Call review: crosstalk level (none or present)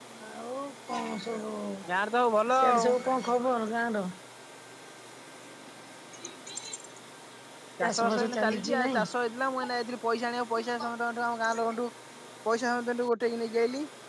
present